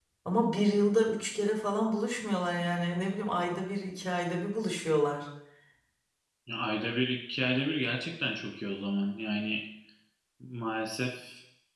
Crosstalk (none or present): none